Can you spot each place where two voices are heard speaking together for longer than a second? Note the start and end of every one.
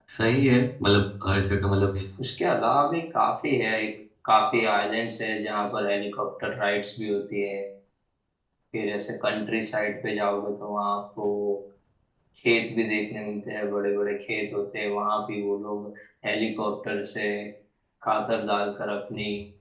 none

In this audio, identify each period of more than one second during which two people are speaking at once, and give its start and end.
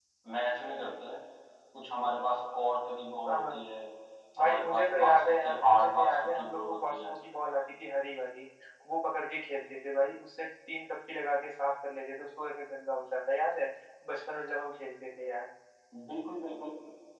4.4-7.1

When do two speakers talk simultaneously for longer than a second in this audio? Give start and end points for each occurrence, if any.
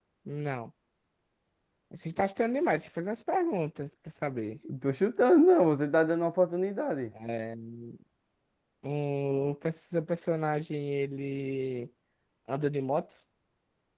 none

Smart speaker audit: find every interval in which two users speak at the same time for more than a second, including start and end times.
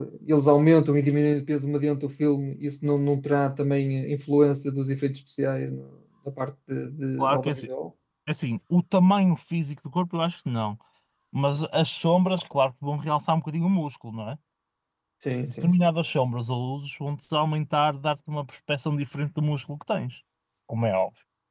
none

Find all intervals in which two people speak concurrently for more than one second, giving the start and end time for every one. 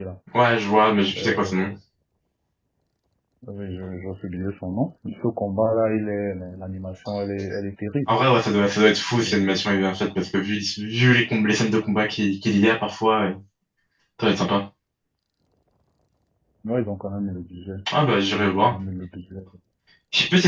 none

